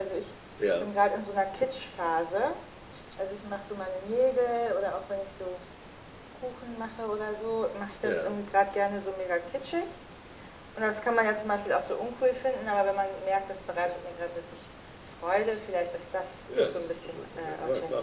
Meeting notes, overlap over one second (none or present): present